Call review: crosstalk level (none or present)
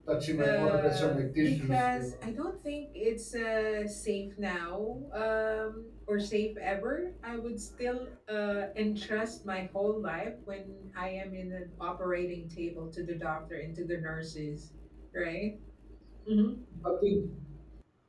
present